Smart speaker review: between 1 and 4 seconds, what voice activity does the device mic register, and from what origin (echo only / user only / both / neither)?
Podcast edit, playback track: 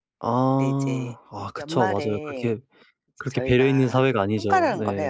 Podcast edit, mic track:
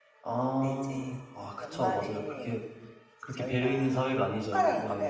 echo only